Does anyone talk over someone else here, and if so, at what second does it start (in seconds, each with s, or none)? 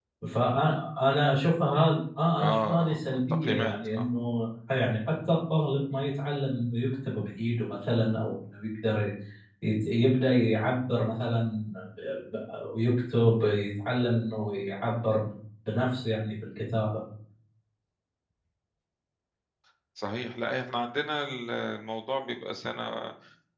2.4 s